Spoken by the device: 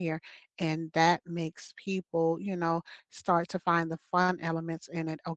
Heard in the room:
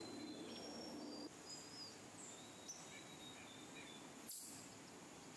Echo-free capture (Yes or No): Yes